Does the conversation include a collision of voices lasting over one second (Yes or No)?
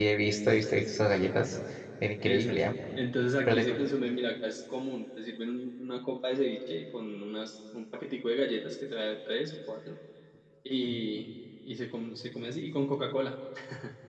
No